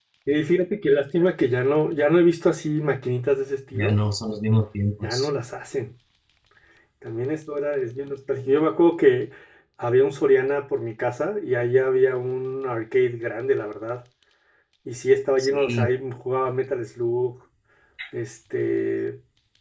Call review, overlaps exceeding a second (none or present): none